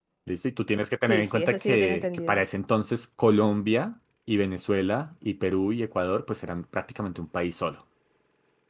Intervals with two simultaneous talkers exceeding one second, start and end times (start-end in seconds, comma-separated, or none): 1.0-2.4